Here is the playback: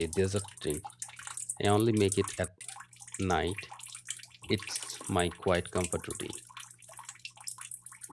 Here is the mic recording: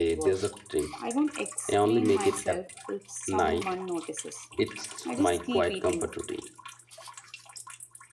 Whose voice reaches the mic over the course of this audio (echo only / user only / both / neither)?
both